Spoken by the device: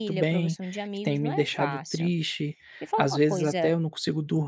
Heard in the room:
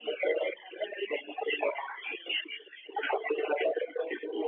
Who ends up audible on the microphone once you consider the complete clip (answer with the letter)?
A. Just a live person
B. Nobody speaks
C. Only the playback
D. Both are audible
C